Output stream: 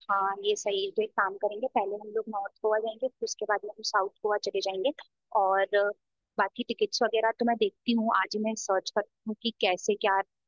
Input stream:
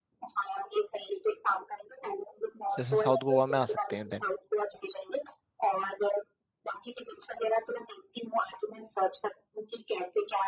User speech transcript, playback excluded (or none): जैसे साउथ गोवा में आ सकते हैं देन